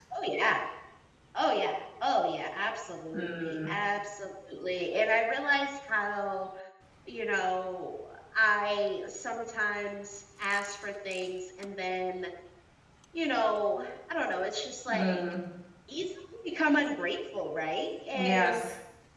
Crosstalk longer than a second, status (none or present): none